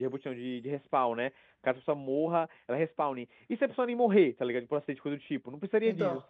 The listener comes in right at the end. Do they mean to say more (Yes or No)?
No